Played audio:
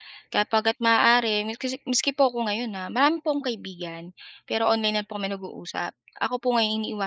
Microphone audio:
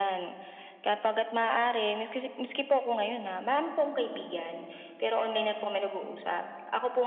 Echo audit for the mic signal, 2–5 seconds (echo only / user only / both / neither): echo only